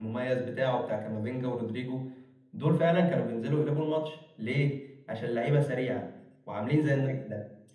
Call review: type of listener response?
listening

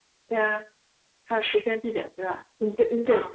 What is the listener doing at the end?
taking over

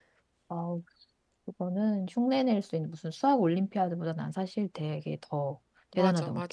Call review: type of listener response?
taking over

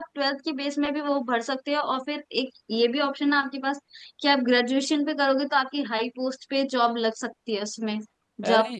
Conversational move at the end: taking over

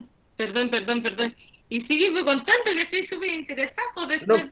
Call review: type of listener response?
listening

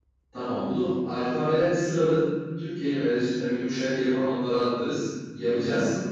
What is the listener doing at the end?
listening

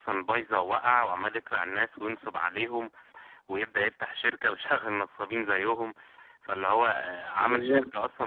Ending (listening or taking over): listening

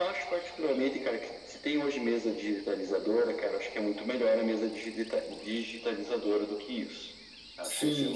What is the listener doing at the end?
taking over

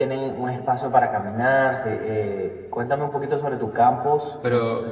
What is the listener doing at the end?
taking over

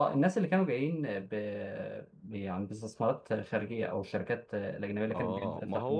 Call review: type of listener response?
taking over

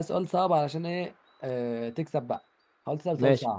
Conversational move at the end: taking over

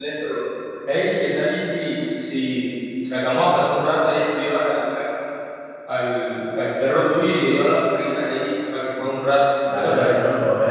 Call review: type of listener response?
taking over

